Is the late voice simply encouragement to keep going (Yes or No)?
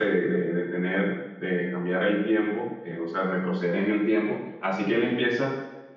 Yes